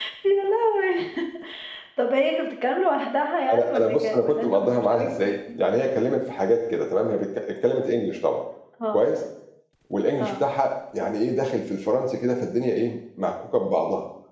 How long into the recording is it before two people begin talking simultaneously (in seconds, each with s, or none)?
3.5 s